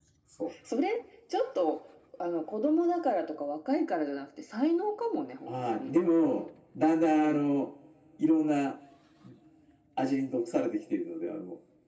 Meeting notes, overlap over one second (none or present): none